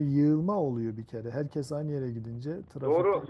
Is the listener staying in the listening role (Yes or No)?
No